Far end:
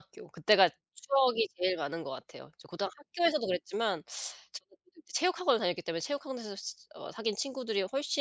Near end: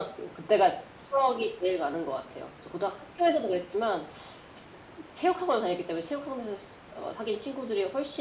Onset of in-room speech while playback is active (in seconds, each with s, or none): none